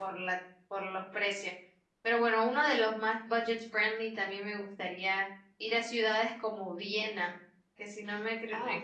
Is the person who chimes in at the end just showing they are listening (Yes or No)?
Yes